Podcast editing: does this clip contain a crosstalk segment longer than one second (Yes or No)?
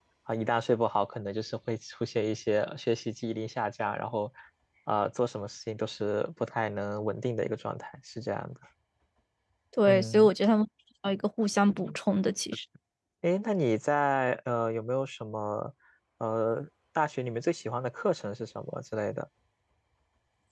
No